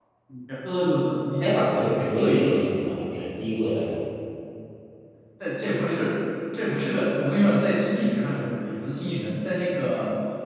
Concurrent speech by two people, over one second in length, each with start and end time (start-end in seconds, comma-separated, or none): 1.4-2.6